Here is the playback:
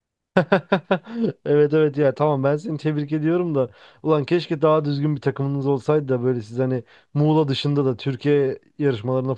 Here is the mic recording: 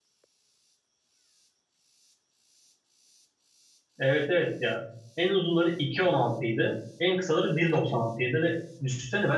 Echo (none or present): none